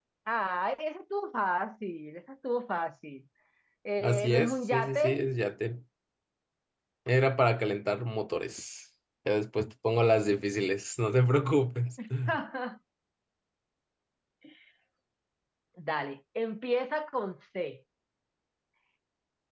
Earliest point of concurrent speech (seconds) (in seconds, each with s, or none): 4.0 s